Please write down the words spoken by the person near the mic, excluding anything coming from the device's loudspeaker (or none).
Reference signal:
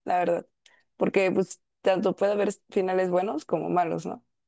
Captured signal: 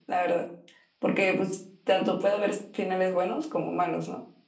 none